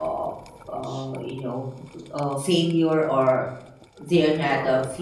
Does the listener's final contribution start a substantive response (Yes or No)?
No